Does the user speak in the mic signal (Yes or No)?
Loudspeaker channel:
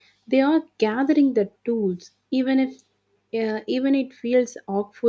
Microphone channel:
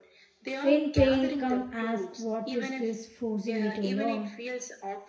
Yes